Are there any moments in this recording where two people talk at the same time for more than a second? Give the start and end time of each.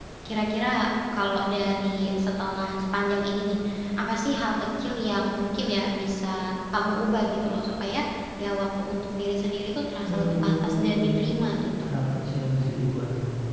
10.1-11.3

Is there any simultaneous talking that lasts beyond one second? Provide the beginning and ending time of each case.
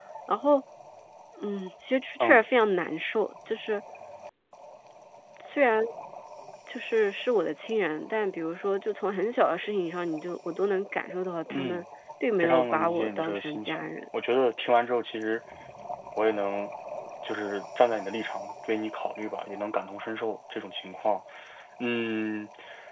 12.4-13.9

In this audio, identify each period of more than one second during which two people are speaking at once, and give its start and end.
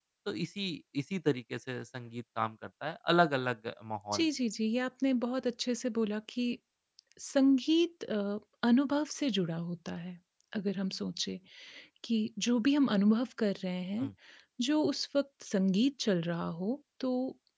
none

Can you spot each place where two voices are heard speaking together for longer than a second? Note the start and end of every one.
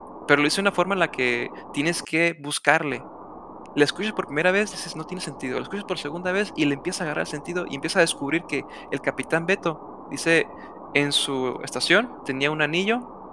none

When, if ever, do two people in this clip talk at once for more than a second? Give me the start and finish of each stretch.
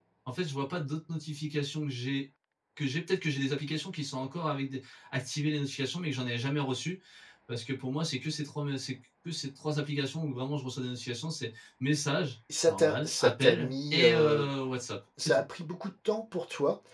12.7-14.4

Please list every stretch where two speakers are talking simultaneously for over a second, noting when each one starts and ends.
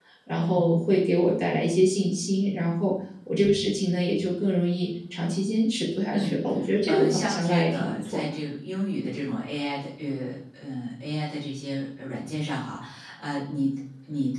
6.9-8.2

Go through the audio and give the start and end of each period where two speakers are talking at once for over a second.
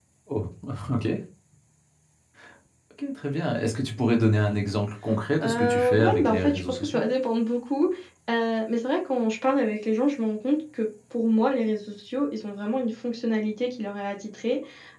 5.4-7.0

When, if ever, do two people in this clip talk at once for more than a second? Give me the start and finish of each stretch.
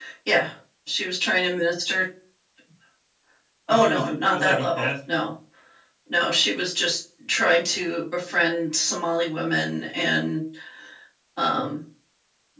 3.7-5.2

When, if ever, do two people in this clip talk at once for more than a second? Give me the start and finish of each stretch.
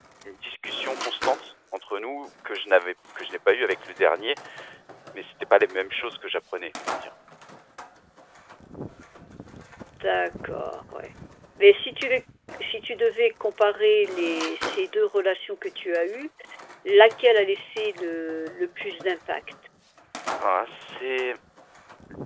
none

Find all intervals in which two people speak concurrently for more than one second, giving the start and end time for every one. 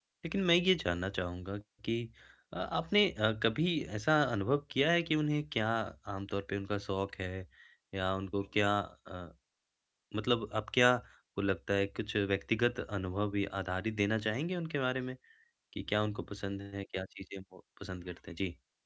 none

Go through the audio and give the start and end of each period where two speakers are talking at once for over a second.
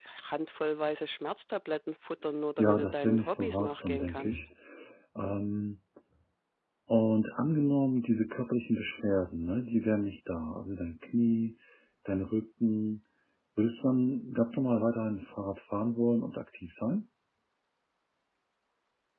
2.6-4.4

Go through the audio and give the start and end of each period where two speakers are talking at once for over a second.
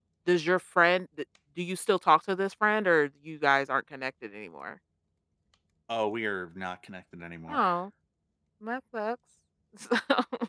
none

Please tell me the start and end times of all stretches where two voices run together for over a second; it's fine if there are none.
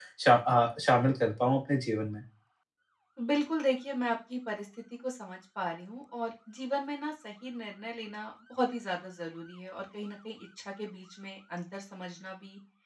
none

